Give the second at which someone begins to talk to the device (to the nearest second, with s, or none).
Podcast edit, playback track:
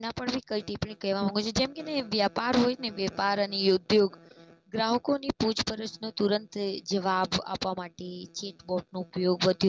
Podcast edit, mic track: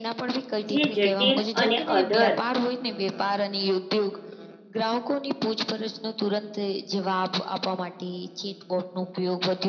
1 s